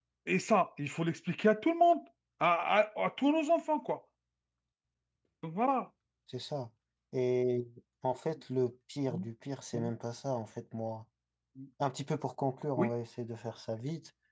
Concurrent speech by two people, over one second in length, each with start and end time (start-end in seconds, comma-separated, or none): none